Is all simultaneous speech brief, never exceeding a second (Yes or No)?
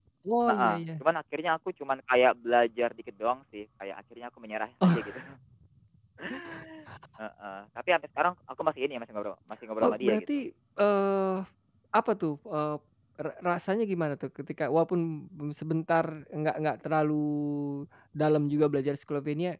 Yes